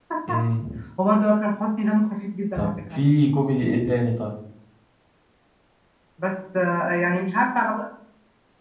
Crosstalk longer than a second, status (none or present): none